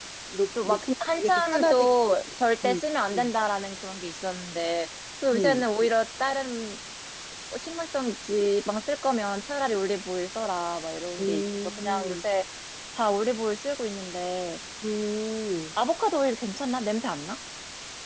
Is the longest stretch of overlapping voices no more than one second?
No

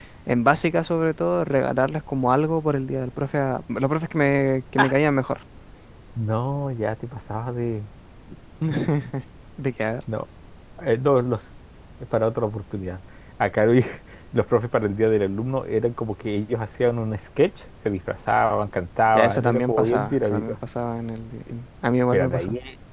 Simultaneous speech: Yes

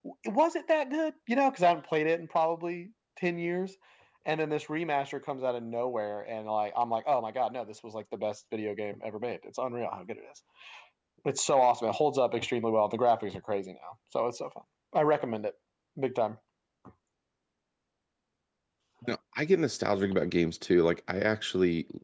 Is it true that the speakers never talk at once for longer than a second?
Yes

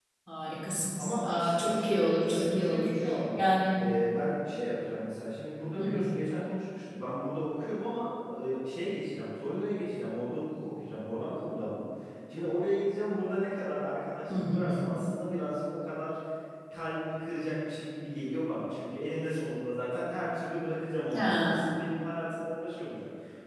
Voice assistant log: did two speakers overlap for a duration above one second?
Yes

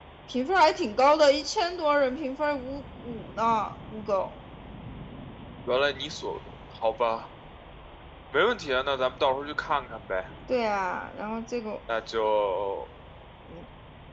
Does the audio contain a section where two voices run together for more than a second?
No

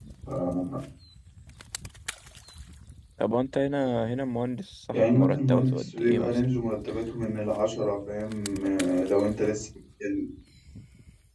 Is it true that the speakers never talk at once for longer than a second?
No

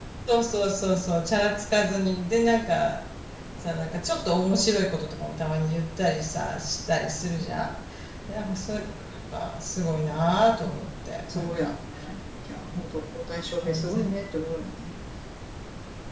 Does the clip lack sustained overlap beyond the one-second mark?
Yes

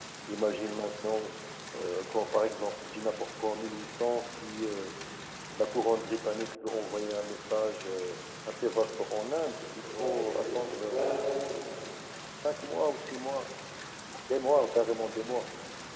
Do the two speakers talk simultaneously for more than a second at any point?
Yes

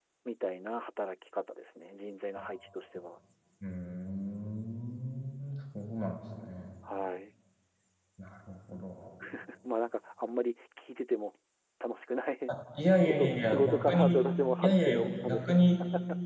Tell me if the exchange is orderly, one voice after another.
No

